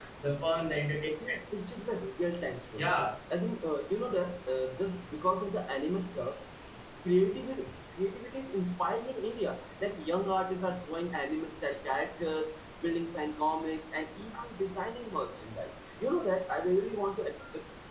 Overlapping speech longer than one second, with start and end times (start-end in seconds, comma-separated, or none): none